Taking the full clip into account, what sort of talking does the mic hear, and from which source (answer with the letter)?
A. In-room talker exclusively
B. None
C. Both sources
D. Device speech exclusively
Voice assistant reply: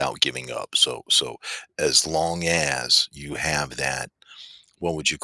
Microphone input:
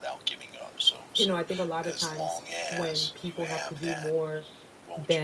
C